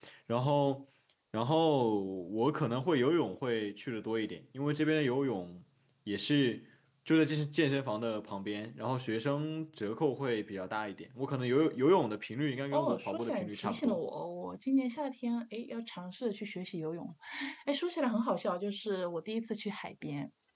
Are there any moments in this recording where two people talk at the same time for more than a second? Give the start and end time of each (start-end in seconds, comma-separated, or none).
12.7-14.0